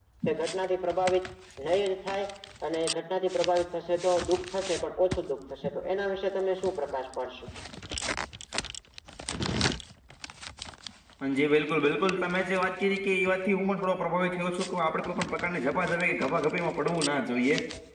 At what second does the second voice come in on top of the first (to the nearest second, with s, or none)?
none